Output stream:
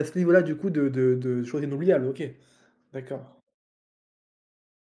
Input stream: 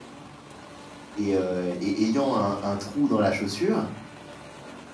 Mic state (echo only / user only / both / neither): user only